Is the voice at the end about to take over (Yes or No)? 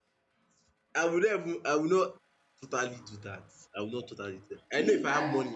No